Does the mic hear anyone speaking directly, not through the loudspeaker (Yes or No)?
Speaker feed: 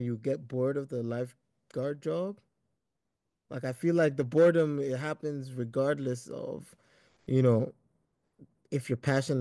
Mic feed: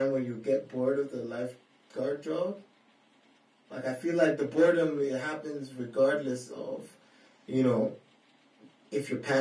No